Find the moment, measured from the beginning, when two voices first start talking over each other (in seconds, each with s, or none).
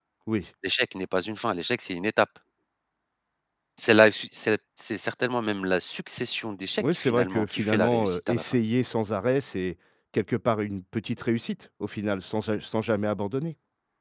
6.8 s